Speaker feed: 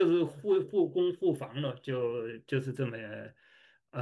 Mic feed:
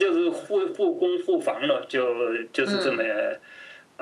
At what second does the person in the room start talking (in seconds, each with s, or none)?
2.6 s